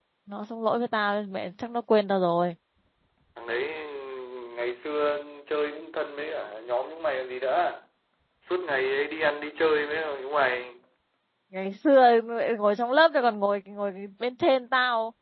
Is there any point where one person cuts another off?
No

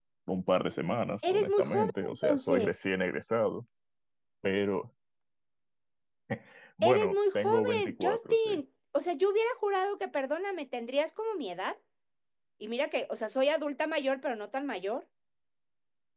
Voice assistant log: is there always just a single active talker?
No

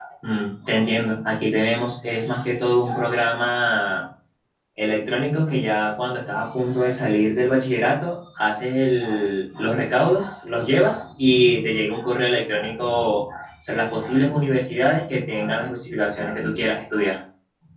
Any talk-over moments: No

